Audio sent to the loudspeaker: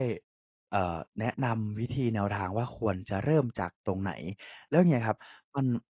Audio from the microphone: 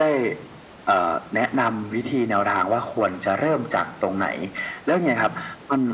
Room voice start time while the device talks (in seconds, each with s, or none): none